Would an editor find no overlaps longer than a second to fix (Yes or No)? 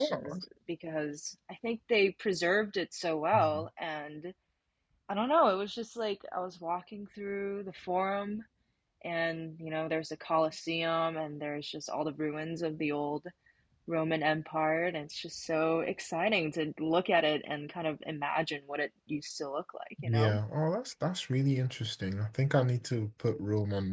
Yes